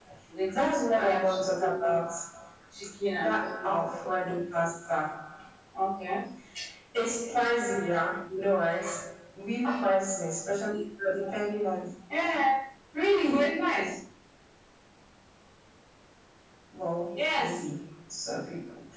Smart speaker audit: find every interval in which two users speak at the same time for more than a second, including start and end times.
0.5-2.0

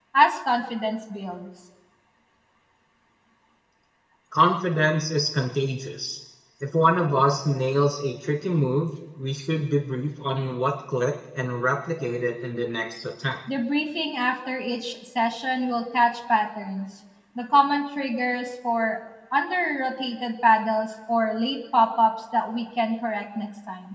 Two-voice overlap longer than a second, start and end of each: none

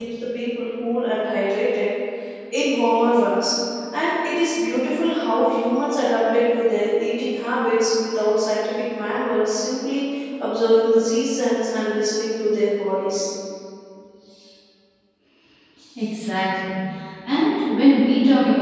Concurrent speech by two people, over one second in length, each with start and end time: none

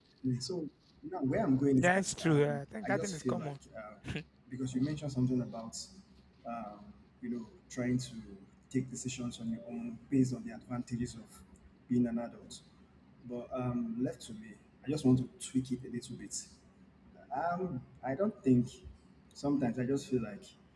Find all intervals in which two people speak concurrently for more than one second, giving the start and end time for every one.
1.8-3.5

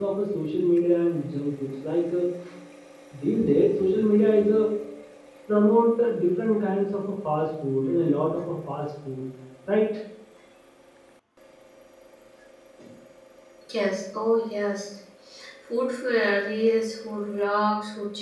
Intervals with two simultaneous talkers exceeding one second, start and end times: none

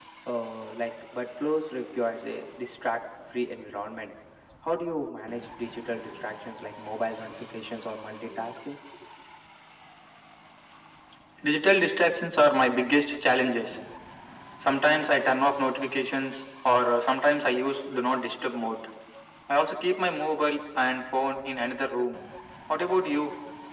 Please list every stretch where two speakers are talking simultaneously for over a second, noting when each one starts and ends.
none

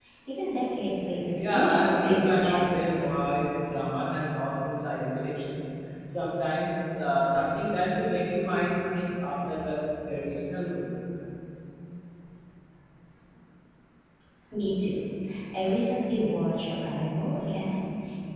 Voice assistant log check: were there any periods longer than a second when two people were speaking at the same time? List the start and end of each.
1.3-2.8

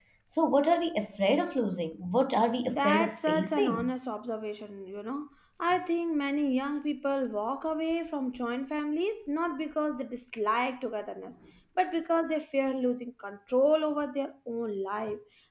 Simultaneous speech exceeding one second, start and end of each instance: 2.7-3.9

